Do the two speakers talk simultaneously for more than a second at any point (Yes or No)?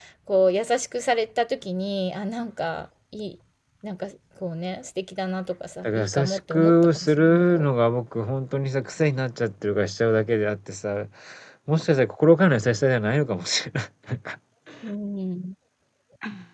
Yes